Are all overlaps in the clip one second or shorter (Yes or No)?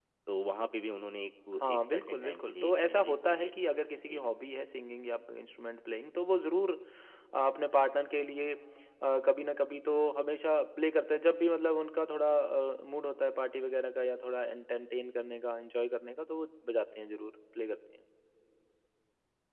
No